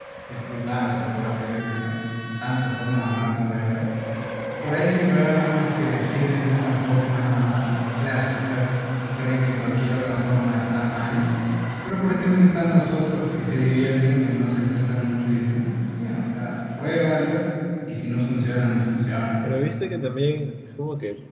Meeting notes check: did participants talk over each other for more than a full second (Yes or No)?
No